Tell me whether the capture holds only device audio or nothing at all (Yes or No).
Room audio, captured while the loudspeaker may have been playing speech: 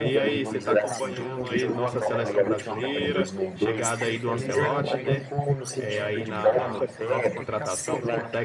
No